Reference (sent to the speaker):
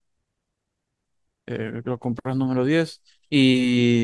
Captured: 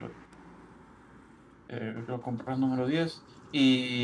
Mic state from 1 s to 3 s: echo only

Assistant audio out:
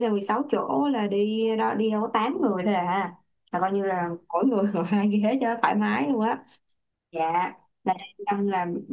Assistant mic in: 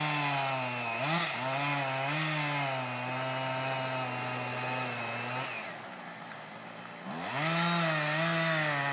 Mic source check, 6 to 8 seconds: neither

